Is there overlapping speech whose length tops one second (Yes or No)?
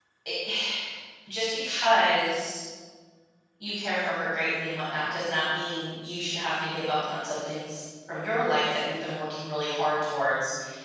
No